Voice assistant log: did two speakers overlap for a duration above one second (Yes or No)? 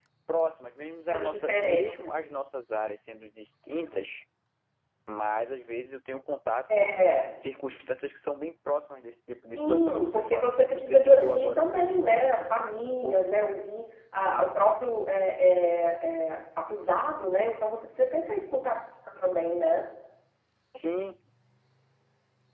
Yes